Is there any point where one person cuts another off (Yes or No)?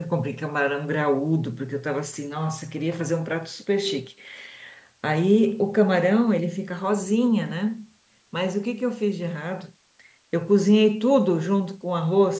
No